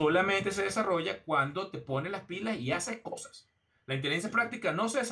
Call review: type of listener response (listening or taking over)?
listening